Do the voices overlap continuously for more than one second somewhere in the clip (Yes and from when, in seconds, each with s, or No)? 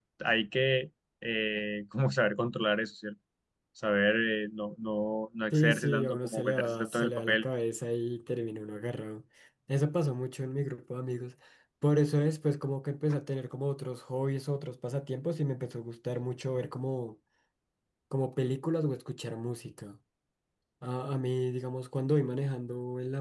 Yes, from 5.5 s